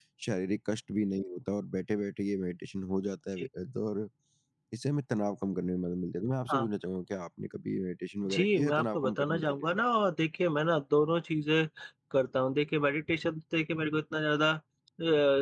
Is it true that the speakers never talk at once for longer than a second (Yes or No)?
No